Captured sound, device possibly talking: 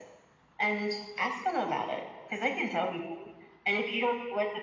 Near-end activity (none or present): none